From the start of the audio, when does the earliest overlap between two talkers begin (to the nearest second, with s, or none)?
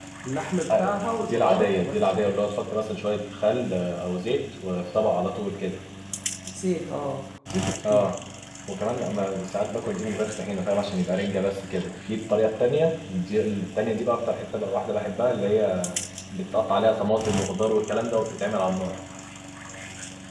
1 s